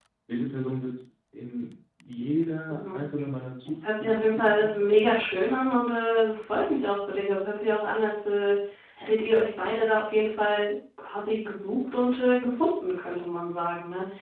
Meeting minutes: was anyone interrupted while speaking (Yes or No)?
Yes